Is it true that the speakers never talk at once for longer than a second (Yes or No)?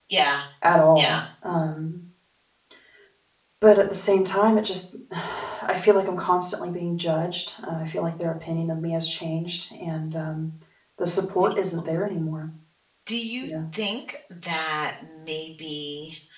Yes